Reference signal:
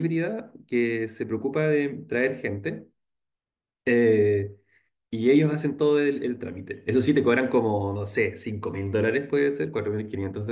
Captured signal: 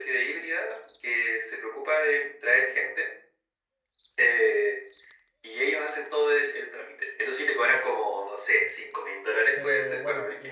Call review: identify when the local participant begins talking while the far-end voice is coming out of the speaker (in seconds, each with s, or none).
9.5 s